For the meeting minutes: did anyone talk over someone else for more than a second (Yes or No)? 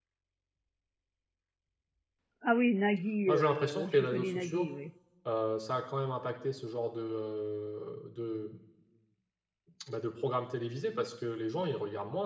Yes